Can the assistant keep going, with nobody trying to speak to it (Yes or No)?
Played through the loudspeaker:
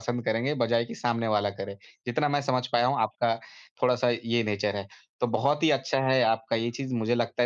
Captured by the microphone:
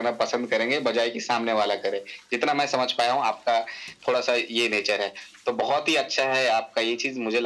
Yes